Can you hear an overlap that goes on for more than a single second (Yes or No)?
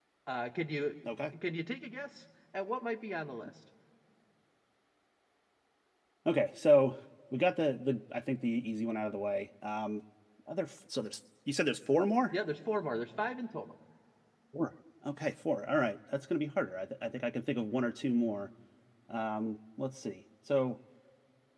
No